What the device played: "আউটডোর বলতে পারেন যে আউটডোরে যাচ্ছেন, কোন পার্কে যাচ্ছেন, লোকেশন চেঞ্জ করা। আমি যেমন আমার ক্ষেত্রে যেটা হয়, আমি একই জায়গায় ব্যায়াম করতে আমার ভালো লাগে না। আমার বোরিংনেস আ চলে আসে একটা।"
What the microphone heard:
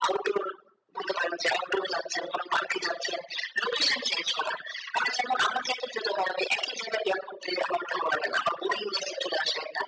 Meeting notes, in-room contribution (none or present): none